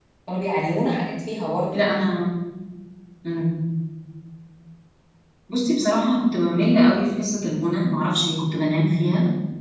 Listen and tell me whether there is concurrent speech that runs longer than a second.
No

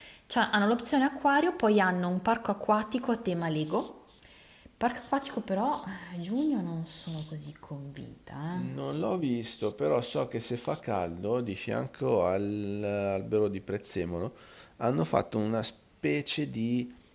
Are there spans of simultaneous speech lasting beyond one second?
No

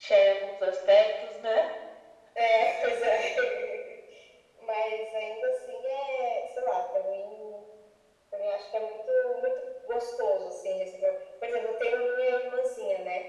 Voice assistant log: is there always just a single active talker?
Yes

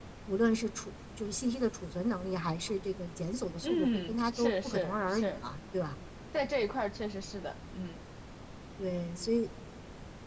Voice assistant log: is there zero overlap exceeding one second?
No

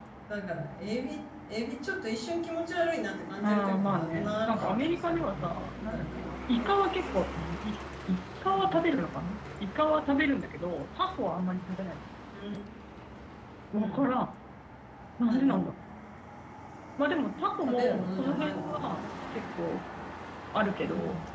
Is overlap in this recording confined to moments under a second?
No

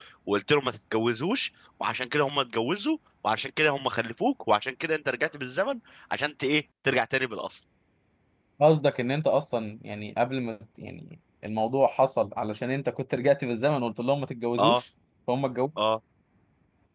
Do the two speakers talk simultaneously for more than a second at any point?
No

